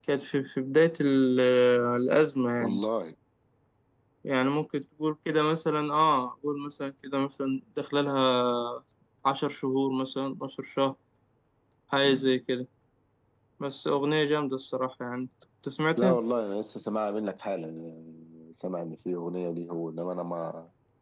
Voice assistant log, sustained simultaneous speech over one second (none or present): none